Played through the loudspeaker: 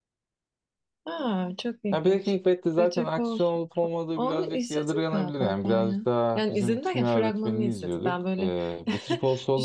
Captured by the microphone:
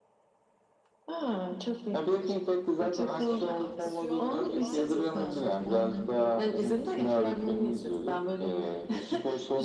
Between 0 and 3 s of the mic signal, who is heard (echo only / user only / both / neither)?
echo only